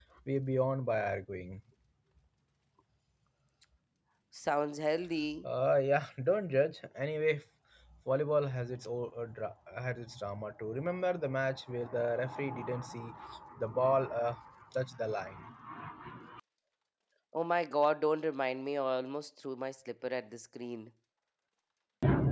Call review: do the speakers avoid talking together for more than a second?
Yes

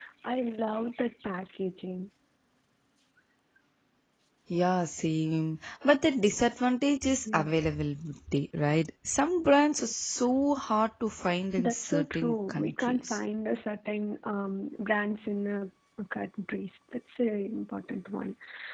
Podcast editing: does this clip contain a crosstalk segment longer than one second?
Yes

